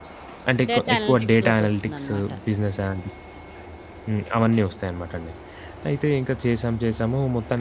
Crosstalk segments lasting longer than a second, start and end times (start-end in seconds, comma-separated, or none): 0.7-2.1